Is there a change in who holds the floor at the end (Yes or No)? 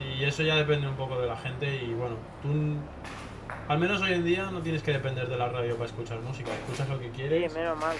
Yes